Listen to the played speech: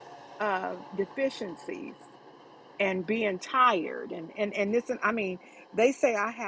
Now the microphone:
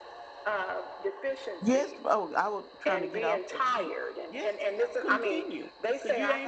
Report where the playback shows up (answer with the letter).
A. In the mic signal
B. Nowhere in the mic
A